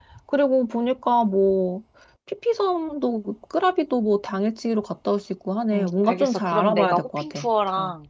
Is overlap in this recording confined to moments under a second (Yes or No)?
No